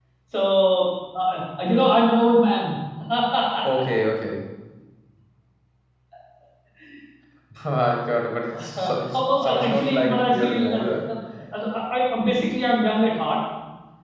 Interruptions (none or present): present